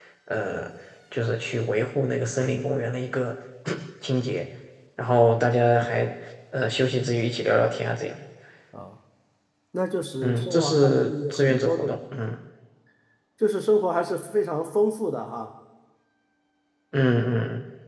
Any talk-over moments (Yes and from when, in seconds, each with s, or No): Yes, from 10.2 s